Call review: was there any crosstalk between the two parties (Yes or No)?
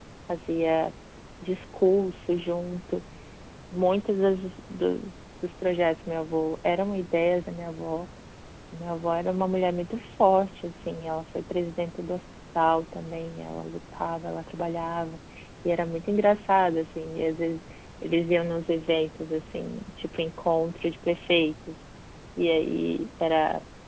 No